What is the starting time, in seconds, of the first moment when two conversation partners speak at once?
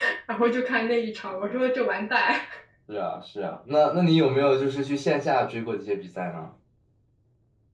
none

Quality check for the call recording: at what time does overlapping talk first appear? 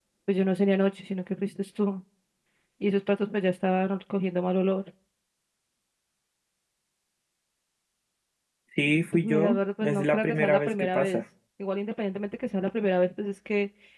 9.2 s

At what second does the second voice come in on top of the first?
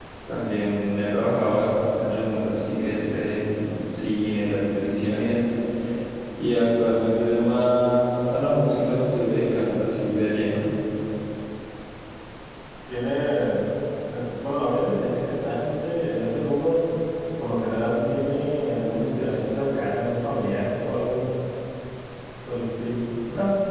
none

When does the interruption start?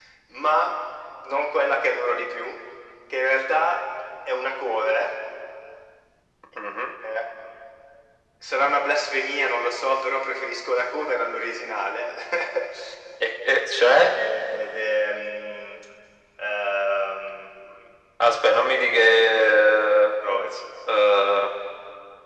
none

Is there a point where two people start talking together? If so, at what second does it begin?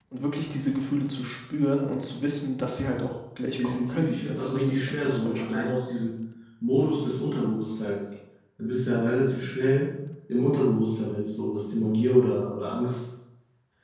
3.6 s

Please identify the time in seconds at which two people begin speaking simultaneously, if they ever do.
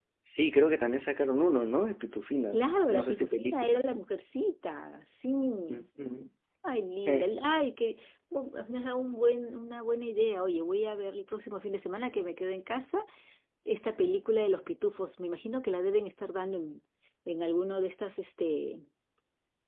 2.5 s

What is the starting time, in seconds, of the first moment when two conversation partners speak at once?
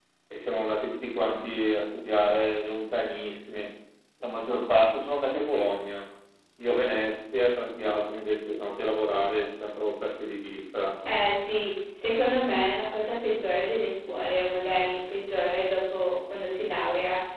none

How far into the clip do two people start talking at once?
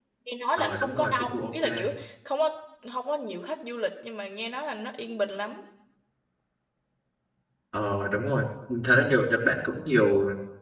0.6 s

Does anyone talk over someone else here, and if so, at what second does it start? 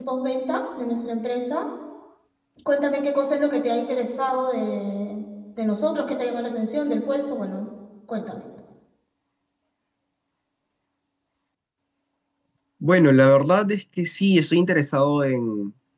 none

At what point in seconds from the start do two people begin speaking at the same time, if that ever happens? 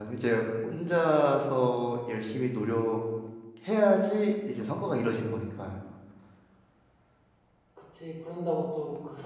none

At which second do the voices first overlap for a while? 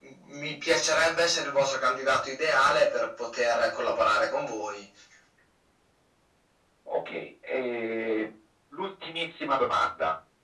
none

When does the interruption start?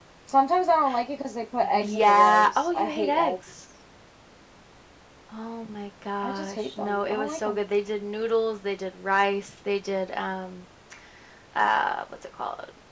1.7 s

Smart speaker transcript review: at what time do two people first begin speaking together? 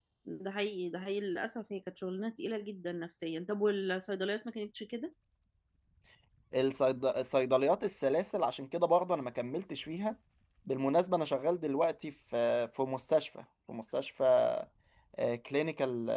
none

